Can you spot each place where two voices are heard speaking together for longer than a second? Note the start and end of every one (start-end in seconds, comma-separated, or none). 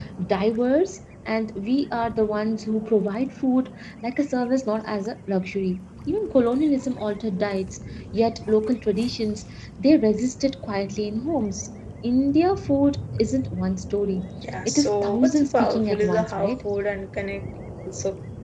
14.6-16.6